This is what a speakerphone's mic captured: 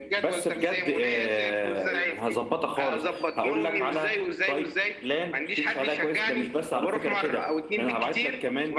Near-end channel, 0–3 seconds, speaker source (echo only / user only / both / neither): echo only